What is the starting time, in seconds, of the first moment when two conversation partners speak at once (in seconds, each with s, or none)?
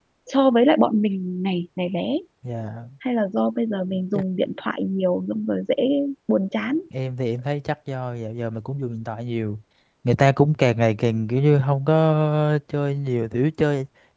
none